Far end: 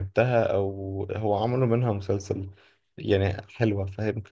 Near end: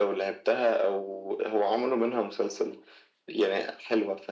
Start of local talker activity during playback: none

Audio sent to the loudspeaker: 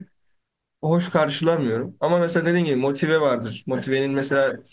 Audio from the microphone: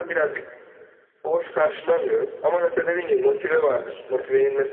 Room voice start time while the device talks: none

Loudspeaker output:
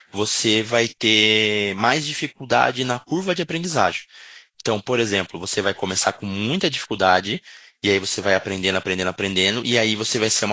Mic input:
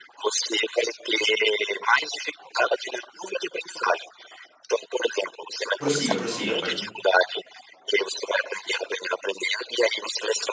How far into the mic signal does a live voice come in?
5.8 s

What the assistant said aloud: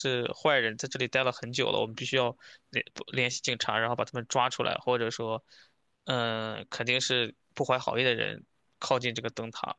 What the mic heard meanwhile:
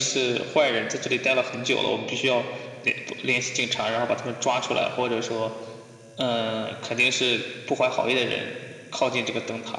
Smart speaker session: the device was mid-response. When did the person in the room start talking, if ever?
none

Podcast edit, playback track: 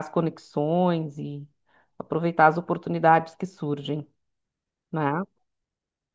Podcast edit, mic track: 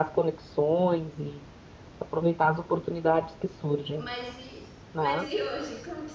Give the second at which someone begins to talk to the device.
4.0 s

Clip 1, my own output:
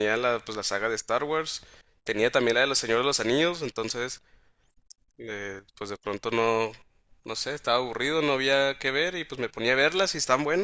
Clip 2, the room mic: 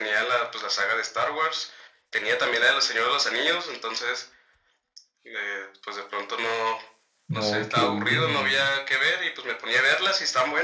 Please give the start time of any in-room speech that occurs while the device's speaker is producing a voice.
7.3 s

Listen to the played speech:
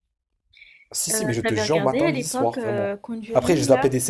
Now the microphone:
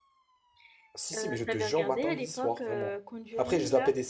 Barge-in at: none

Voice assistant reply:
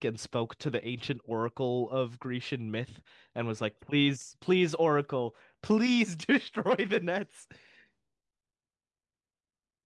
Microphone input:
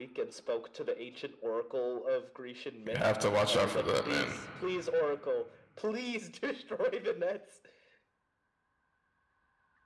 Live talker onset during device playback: 2.9 s

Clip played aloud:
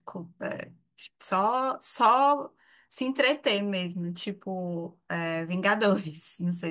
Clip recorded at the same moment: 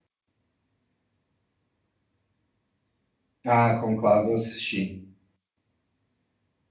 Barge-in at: 3.5 s

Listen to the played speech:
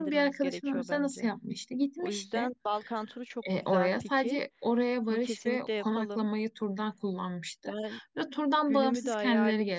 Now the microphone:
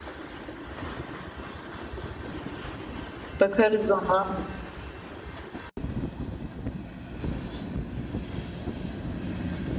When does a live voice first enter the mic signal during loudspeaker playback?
3.4 s

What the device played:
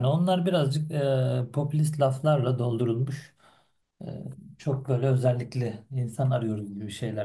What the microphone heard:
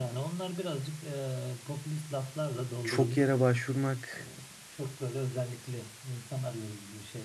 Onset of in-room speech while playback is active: 2.8 s

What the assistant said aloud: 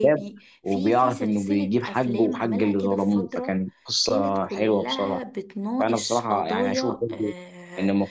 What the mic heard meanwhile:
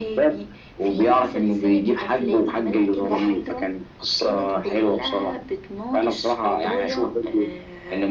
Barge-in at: 3.0 s

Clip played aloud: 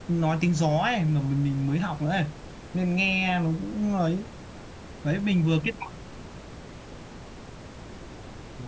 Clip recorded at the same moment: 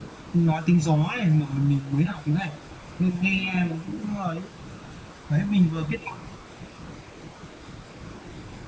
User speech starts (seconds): none

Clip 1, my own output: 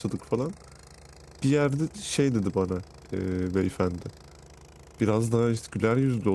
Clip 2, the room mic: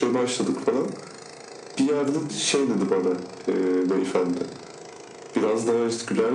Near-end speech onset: none

